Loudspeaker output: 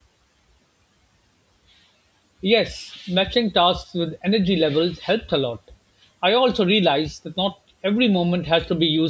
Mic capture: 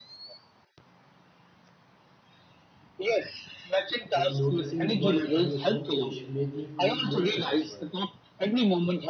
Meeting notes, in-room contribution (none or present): present